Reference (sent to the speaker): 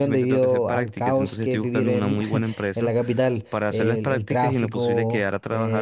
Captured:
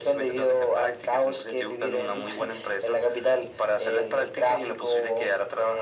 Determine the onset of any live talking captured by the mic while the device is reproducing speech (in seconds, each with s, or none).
none